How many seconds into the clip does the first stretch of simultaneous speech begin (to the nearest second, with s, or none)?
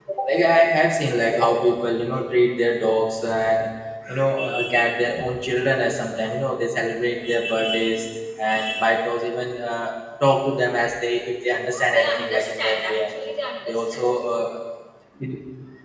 12 s